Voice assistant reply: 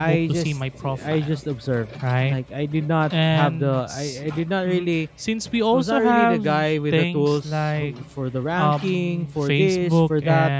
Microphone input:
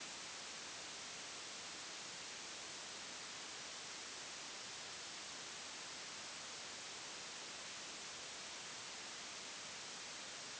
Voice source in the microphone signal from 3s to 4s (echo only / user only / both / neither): neither